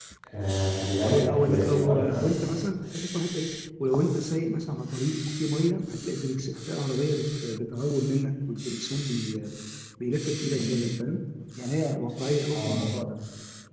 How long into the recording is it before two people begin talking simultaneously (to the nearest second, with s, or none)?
1 s